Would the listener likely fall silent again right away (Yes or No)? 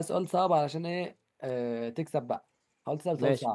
No